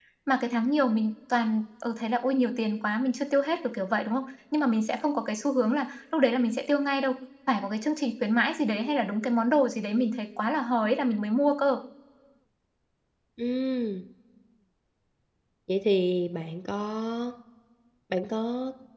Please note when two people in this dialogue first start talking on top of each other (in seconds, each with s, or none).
none